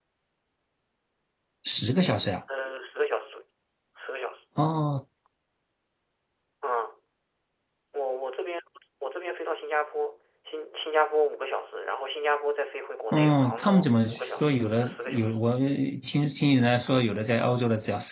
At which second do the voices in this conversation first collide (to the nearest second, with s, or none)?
13 s